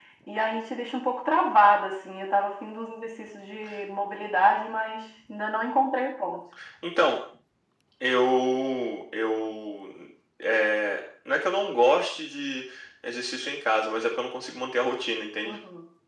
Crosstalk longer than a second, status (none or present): none